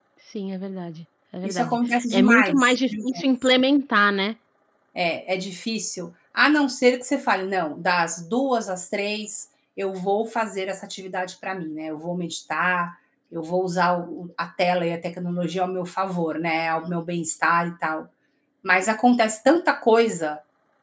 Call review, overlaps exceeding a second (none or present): present